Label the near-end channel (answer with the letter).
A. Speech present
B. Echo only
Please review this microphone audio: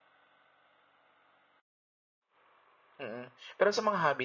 A